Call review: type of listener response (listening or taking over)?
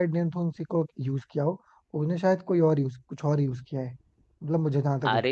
taking over